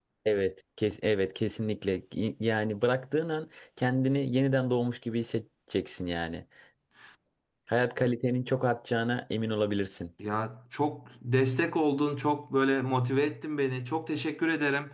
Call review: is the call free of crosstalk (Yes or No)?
Yes